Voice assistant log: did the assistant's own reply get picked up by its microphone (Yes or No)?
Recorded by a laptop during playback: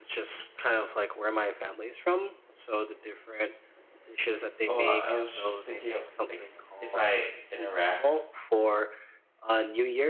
Yes